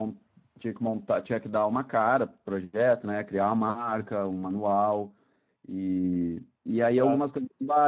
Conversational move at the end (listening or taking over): listening